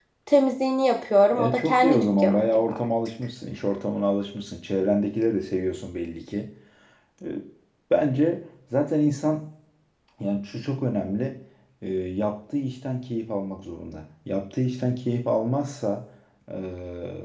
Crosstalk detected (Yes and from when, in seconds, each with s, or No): Yes, from 1.3 s